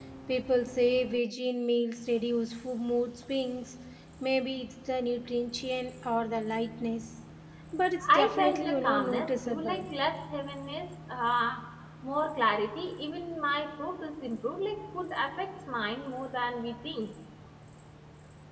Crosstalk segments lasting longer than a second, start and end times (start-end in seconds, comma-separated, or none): 8.1-9.8